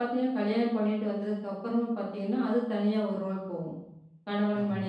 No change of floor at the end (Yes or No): Yes